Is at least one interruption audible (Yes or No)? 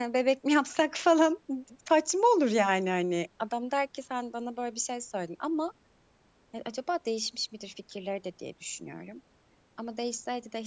No